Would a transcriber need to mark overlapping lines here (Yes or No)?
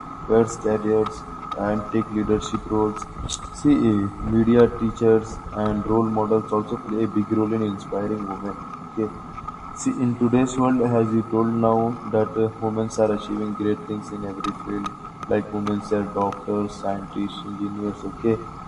No